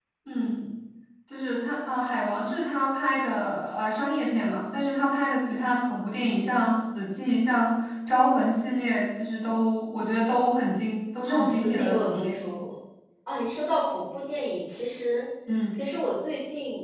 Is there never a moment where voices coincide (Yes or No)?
No